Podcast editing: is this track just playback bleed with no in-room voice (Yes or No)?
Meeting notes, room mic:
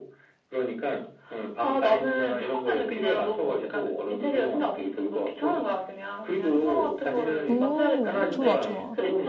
No